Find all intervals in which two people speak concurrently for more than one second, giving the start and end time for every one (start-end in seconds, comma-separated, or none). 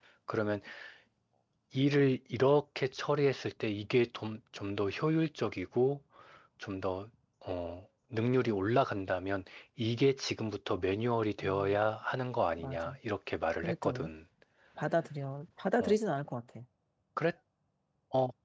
none